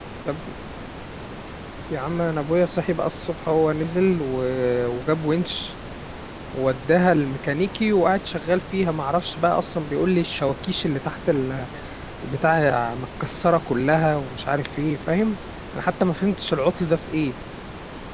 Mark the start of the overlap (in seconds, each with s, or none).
none